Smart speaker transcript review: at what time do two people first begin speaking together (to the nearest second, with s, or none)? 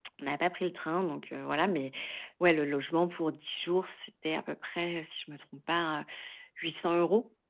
none